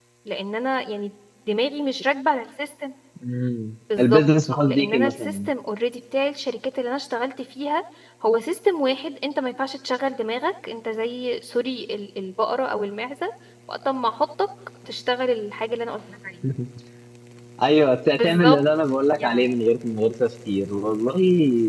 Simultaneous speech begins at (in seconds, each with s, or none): 4.0 s